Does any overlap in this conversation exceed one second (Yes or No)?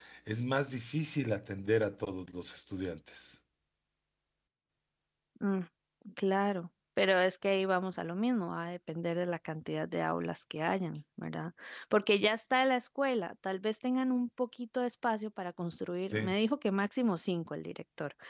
No